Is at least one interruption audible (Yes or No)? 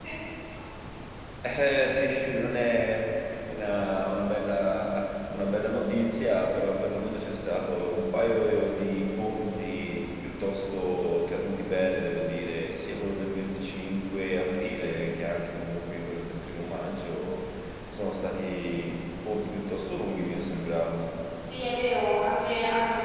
No